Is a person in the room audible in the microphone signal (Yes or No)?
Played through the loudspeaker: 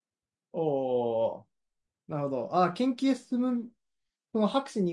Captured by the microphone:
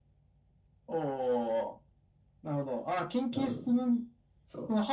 Yes